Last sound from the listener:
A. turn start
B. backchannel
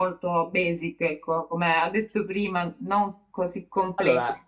B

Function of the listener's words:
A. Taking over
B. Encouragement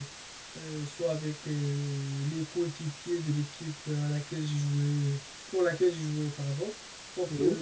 B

